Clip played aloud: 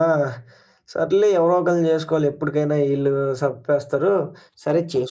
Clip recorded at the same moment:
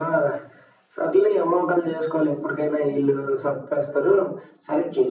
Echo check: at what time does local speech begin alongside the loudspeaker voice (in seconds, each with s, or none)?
none